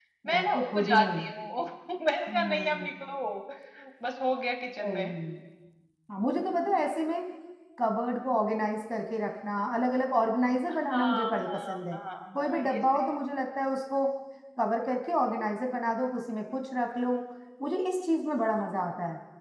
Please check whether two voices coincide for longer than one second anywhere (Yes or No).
Yes